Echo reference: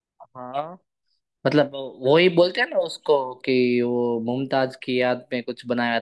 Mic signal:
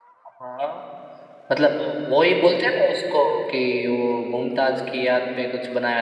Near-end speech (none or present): none